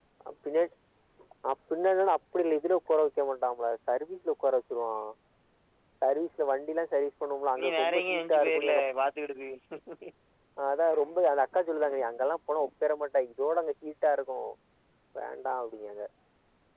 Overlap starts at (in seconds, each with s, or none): 7.6 s